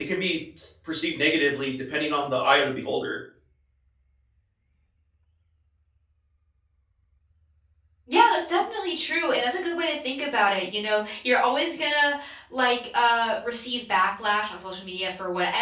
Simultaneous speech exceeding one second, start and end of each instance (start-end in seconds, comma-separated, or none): none